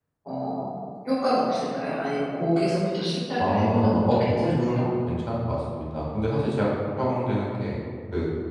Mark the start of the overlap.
3.4 s

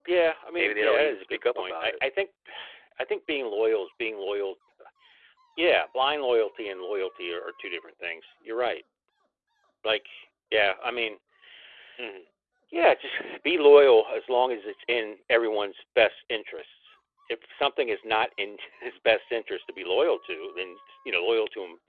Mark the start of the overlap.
0.6 s

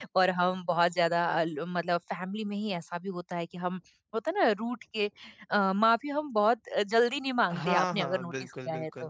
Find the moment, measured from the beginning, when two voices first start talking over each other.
7.5 s

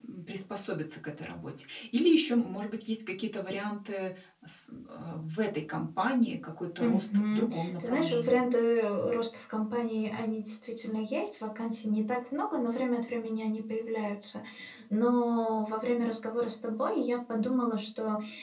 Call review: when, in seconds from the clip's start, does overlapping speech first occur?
6.8 s

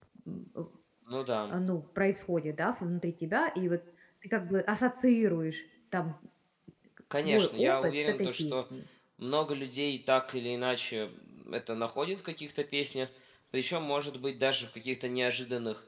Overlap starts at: 7.1 s

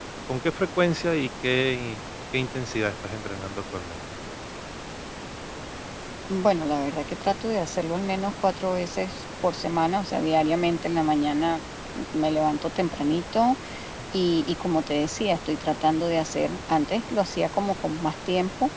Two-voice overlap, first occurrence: none

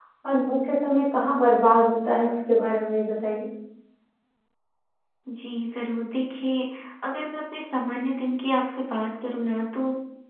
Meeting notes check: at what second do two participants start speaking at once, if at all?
none

